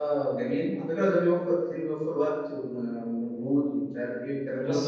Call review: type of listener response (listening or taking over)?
taking over